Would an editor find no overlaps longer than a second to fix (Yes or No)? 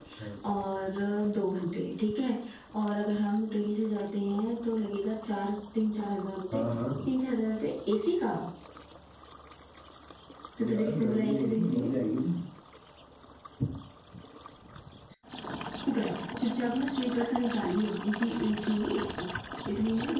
No